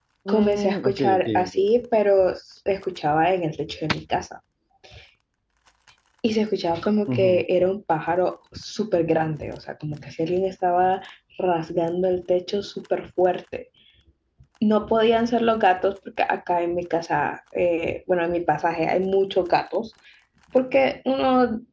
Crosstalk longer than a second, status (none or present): present